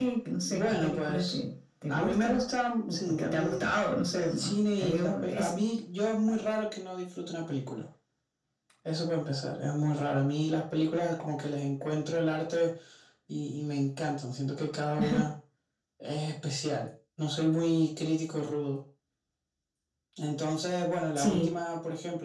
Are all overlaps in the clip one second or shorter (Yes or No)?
No